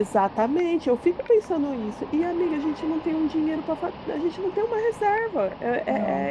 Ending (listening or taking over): listening